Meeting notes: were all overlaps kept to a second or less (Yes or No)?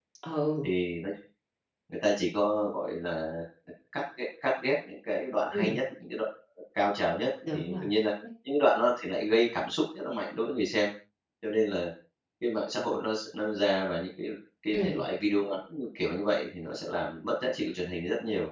Yes